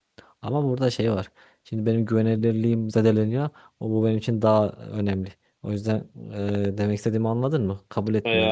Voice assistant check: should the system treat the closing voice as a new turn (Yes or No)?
Yes